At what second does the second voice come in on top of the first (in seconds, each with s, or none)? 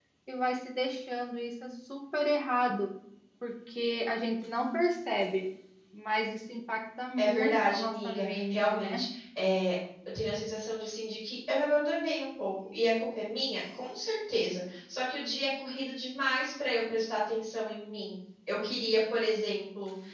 7.2 s